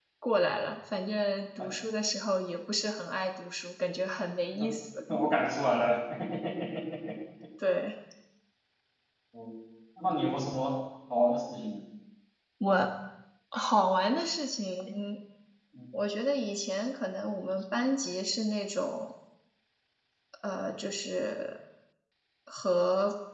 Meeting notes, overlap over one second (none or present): none